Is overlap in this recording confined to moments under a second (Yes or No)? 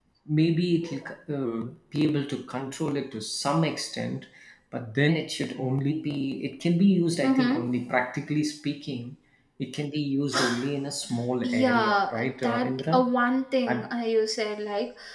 No